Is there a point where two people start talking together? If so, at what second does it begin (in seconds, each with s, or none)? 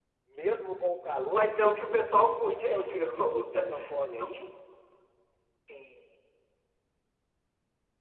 1.3 s